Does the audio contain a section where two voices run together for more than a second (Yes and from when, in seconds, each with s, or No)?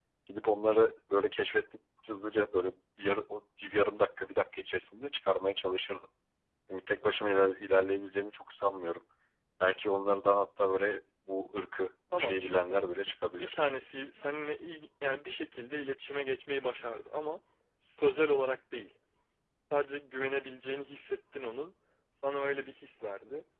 Yes, from 12.1 s